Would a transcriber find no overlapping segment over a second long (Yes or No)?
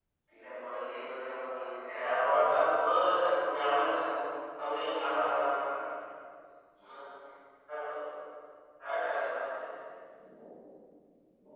Yes